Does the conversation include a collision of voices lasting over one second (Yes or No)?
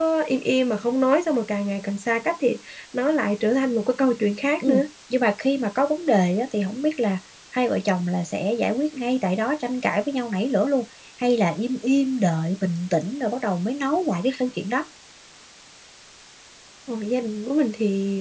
No